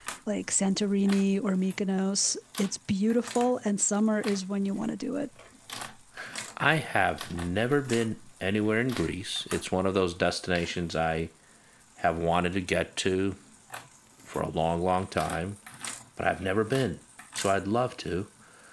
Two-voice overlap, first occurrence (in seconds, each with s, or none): none